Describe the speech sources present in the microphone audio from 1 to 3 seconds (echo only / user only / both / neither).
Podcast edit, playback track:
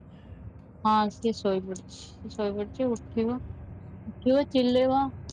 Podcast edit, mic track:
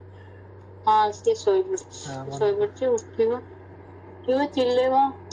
both